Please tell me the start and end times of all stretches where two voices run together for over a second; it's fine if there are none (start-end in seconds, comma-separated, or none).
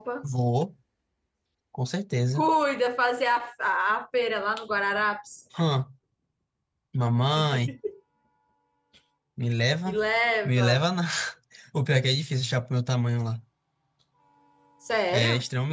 none